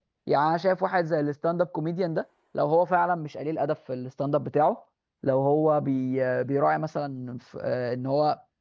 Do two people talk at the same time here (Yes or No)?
No